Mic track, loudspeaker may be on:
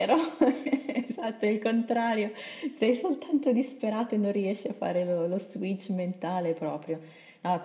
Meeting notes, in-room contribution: none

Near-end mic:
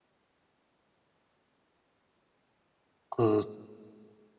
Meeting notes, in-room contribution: present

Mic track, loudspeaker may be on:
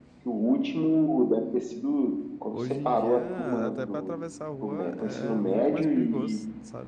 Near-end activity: present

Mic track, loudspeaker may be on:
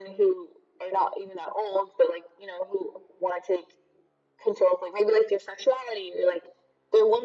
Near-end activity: none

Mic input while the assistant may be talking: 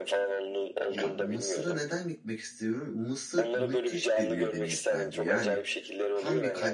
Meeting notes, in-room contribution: present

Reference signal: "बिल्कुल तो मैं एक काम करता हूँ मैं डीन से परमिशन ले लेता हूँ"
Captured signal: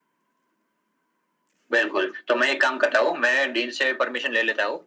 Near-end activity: none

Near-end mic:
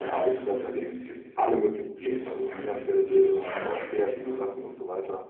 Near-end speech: present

